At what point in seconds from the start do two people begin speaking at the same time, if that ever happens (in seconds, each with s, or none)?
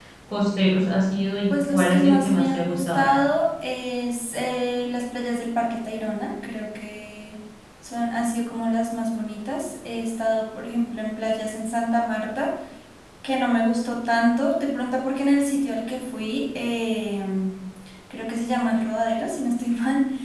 1.5 s